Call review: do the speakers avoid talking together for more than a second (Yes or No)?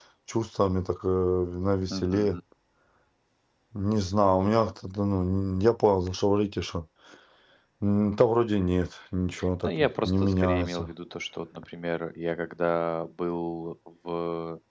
No